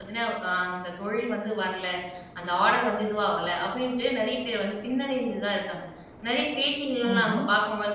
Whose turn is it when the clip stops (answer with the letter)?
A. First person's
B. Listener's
A